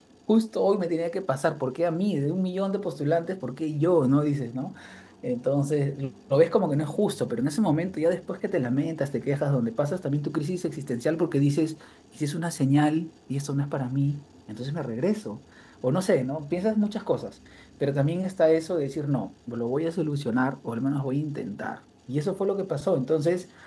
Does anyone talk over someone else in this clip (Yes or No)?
No